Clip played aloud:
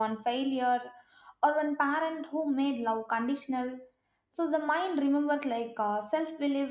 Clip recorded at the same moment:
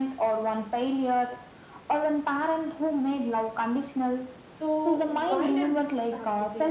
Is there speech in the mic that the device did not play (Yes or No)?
Yes